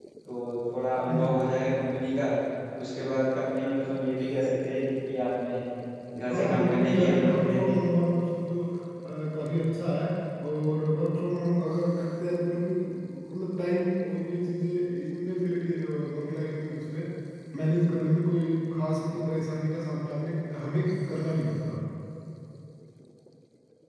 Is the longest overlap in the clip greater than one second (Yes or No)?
Yes